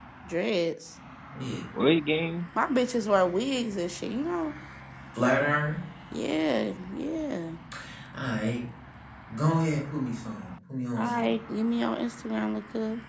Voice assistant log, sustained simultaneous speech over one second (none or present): none